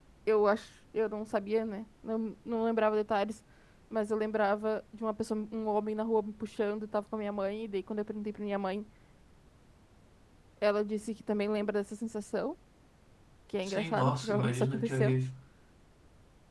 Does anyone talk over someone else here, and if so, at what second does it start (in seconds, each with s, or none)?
13.7 s